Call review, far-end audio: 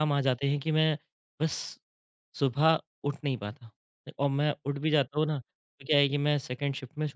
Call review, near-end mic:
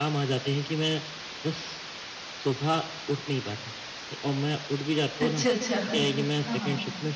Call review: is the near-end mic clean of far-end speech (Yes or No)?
No